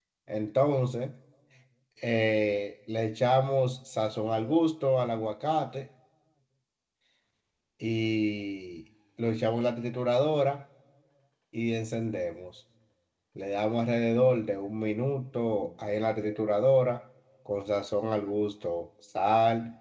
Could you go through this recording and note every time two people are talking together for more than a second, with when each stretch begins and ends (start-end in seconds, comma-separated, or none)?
none